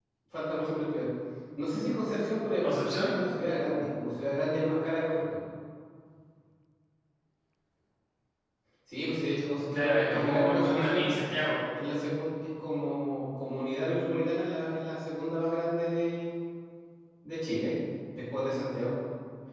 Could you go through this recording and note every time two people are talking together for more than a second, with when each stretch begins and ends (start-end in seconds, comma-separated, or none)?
9.7-11.1